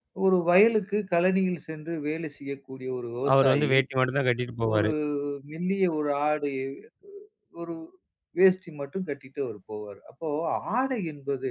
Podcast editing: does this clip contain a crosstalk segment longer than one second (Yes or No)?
No